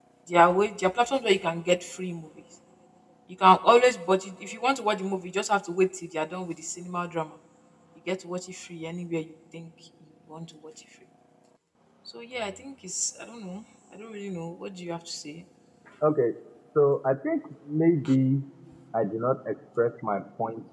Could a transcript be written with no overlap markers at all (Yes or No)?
Yes